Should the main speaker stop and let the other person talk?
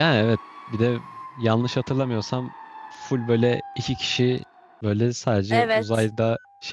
No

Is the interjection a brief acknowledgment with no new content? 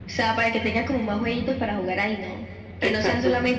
Yes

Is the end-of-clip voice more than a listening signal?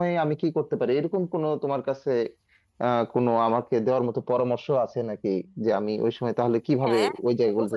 Yes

